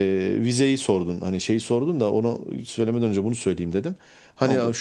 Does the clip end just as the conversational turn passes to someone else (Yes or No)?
No